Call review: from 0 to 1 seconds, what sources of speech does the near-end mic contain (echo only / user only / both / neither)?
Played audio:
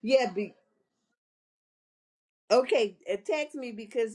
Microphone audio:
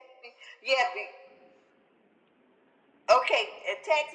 echo only